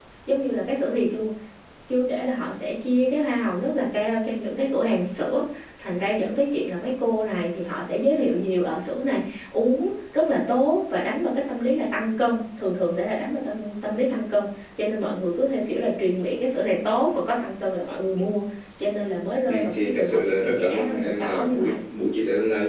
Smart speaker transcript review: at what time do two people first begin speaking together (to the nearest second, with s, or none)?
19 s